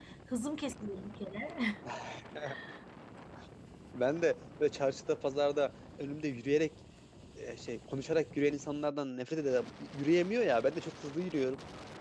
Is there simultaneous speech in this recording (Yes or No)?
No